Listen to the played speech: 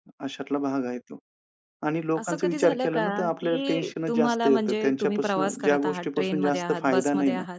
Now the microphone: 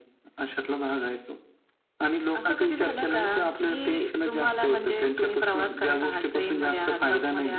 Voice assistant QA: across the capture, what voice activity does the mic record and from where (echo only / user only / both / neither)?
echo only